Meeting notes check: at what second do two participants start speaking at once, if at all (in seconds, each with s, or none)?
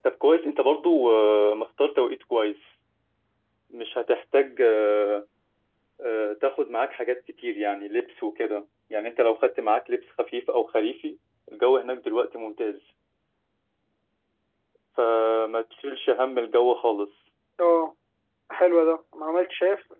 none